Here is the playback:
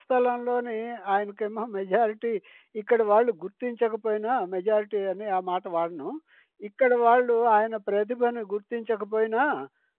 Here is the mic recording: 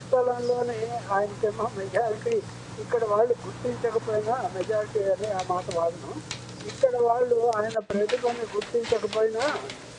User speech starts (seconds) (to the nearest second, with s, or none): none